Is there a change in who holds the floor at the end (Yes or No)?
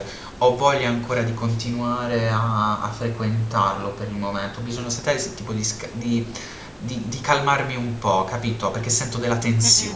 Yes